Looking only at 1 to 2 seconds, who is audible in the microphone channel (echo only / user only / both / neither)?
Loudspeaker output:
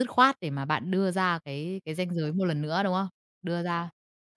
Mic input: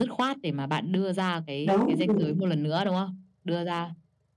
both